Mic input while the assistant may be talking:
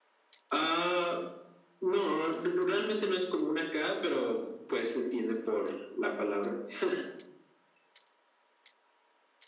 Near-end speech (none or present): none